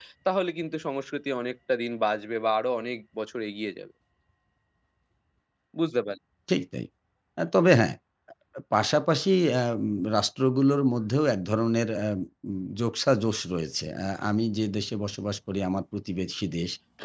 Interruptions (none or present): none